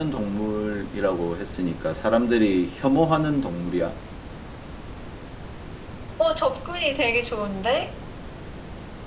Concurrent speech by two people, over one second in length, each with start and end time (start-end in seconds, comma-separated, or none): none